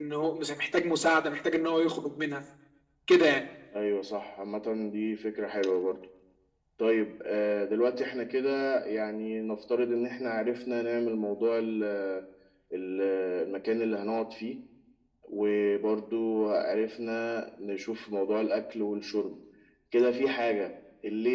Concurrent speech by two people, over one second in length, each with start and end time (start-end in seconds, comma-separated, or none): none